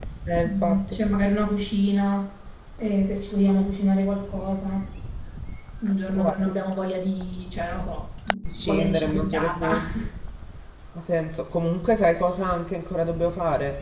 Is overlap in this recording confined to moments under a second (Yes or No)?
No